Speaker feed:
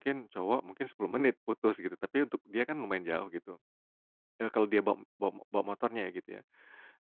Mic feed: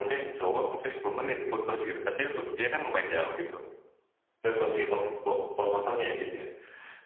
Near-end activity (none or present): none